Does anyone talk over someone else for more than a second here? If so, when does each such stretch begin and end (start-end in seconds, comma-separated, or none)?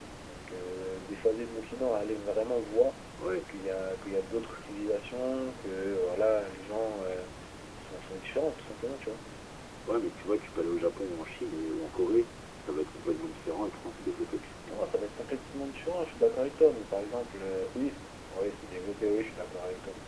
none